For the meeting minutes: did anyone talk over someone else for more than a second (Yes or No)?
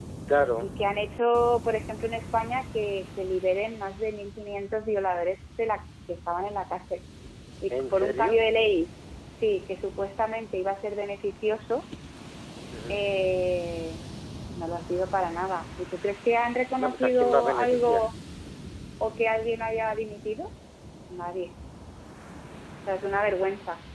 Yes